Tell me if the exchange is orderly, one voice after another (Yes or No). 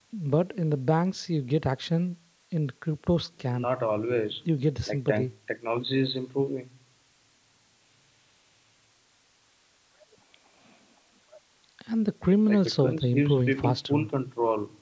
No